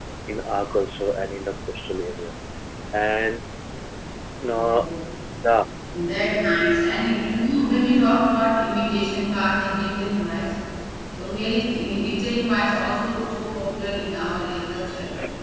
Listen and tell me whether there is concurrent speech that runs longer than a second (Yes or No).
No